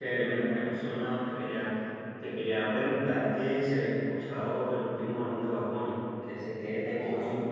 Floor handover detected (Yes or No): No